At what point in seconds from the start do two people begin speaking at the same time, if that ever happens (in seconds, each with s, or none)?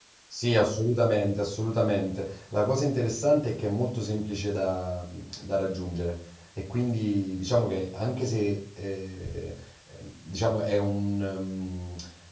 none